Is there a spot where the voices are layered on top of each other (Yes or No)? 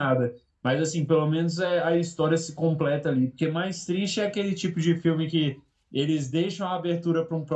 No